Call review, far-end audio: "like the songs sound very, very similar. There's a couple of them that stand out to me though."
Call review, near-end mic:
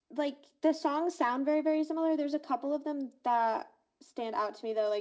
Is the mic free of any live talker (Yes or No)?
Yes